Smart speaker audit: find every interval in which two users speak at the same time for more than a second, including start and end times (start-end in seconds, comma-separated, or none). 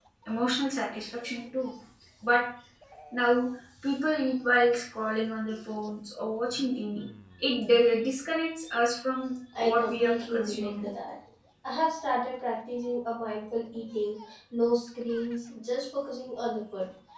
9.6-10.9